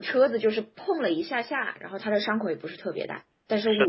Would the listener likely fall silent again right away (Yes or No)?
No